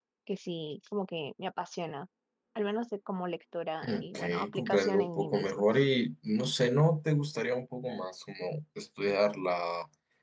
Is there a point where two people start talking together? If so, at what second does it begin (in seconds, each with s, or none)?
3.8 s